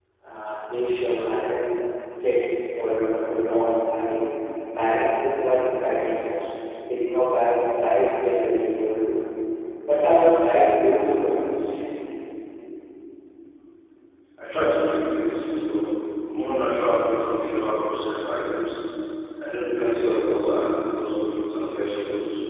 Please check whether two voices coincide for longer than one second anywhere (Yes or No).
No